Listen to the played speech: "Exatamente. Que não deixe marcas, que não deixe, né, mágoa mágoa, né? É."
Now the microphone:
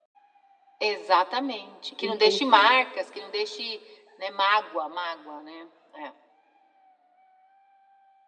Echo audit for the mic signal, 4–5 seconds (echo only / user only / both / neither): echo only